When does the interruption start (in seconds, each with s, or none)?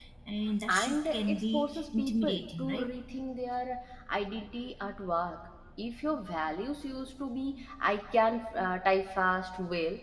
0.7 s